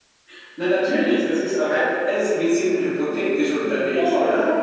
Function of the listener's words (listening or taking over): taking over